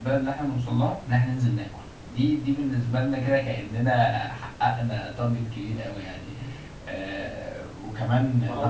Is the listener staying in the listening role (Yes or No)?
No